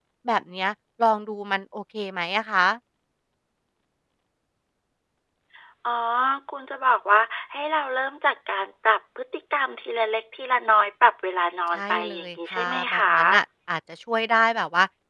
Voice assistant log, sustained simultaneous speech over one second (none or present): present